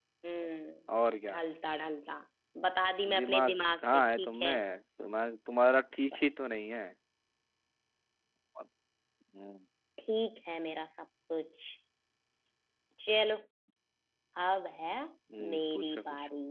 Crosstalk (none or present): present